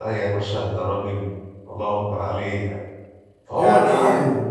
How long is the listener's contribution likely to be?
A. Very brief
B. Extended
A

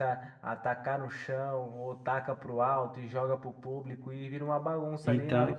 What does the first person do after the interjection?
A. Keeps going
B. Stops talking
A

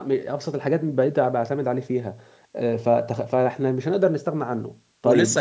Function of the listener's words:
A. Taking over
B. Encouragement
A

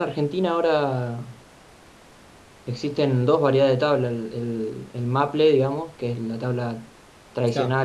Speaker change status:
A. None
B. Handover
A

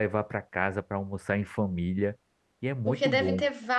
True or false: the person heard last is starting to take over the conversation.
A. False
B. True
B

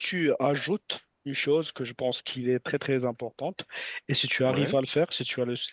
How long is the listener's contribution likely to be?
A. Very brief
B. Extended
A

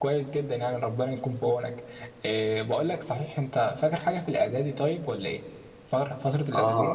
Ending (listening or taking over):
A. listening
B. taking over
B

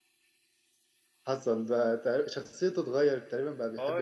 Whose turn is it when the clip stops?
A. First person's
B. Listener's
B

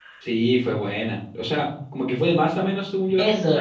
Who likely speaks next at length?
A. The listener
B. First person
A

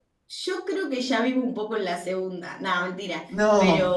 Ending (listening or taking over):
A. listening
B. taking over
A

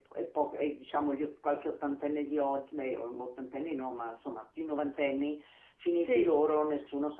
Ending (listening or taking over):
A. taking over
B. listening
B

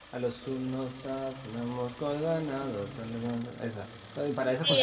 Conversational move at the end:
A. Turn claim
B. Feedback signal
A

